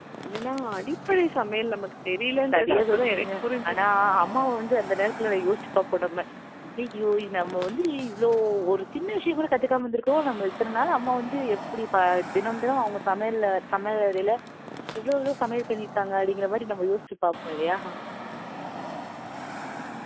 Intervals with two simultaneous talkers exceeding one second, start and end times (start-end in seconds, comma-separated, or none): 2.5-3.8